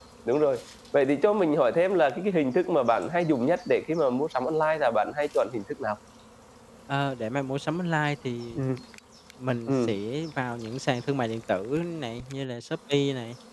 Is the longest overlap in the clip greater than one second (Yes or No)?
No